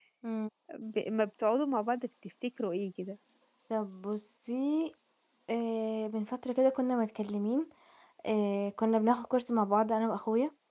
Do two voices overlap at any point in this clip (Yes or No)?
No